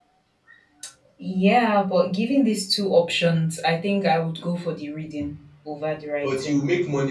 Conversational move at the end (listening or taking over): taking over